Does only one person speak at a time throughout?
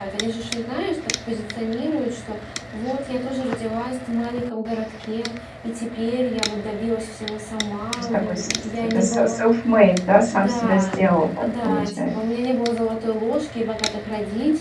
No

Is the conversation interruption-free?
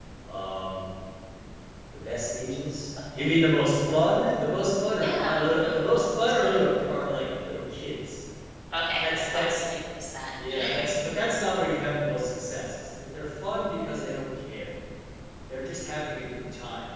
No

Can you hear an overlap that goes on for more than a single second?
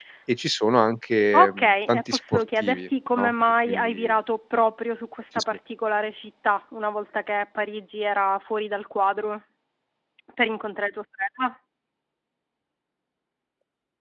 Yes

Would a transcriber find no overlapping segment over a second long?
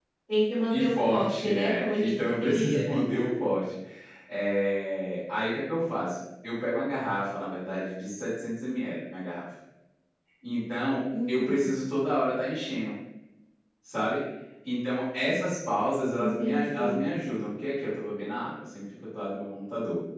No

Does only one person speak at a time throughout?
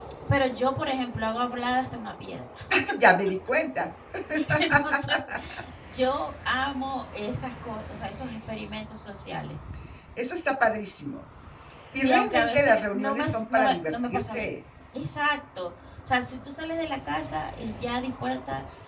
No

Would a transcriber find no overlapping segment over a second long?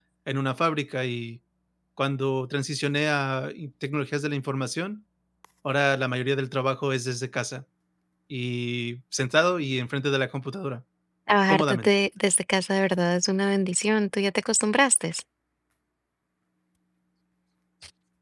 Yes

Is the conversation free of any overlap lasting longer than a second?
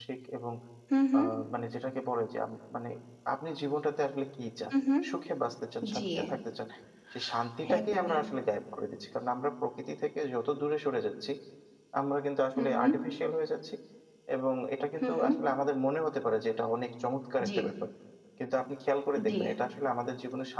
Yes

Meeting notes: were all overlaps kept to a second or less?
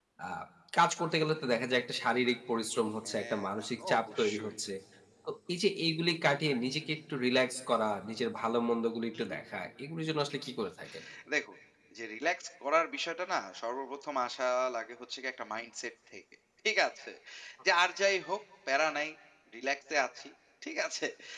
No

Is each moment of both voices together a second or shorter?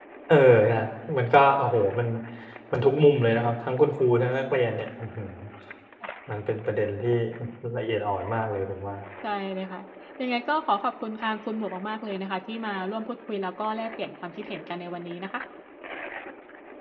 Yes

